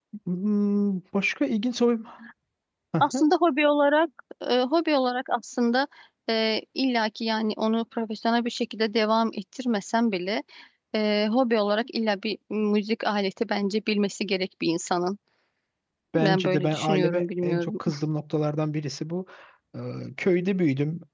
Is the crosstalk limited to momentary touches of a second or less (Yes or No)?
No